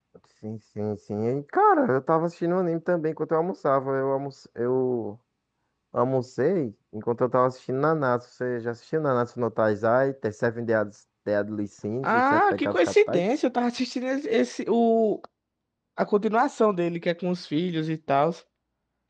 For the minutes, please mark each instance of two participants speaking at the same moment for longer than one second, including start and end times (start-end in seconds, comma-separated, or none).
12.0-13.2